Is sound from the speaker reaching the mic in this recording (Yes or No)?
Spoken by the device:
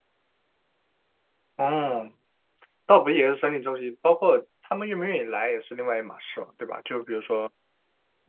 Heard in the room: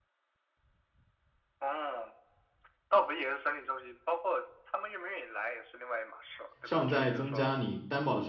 Yes